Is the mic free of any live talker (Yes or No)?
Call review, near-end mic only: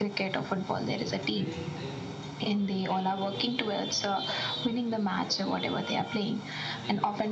No